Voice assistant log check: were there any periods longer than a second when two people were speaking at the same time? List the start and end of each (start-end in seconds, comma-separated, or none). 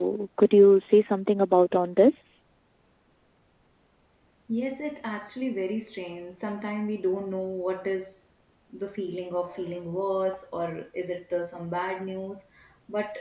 none